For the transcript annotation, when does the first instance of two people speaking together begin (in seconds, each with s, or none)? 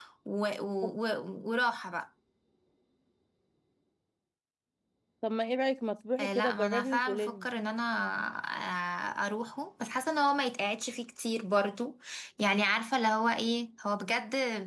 6.2 s